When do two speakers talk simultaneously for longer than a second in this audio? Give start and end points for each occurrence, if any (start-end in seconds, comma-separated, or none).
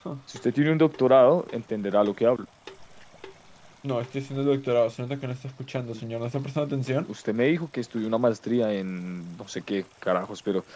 none